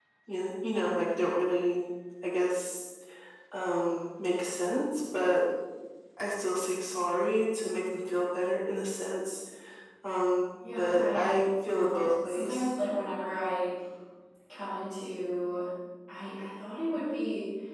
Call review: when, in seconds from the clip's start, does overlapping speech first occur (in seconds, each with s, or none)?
10.8 s